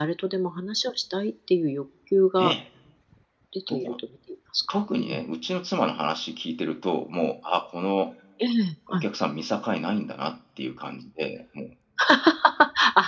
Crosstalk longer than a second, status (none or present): none